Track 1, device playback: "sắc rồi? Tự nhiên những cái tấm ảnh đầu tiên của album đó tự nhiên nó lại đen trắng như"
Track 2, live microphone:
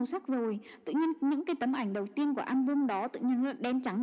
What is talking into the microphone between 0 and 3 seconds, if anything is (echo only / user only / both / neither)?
echo only